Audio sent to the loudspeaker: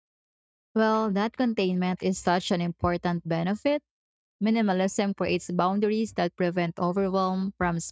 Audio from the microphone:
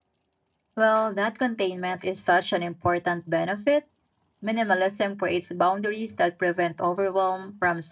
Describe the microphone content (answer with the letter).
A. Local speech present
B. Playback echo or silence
B